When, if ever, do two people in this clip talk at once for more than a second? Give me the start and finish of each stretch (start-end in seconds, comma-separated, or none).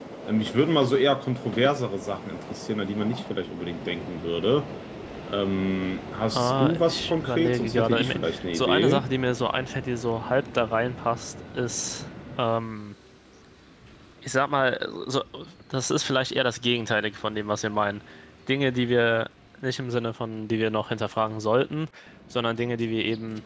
6.3-9.0